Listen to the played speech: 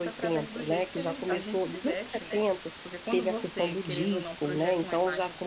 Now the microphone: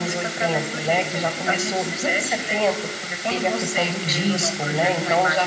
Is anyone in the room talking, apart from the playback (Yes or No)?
No